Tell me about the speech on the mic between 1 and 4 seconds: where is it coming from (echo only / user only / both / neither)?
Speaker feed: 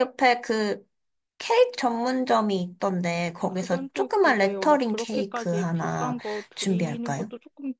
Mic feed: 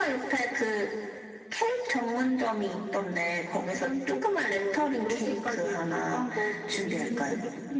echo only